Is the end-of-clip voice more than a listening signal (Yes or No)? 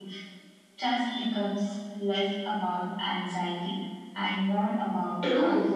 Yes